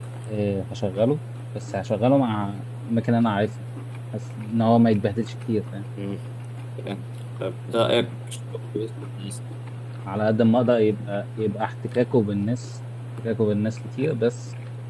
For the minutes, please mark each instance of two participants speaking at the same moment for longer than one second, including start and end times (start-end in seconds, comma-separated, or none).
none